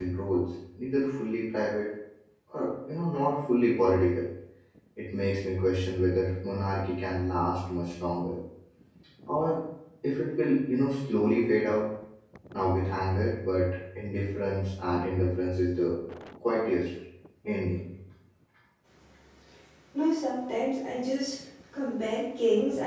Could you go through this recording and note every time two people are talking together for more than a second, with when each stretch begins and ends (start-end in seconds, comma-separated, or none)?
none